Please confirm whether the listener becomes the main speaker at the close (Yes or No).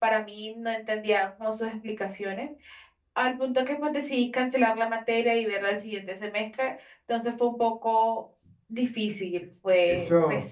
Yes